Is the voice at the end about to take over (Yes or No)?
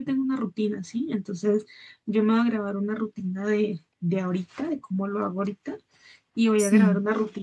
No